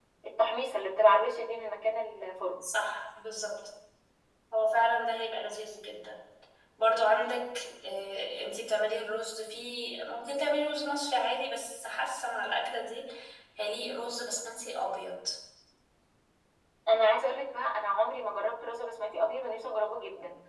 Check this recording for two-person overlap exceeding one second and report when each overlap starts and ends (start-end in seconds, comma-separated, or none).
none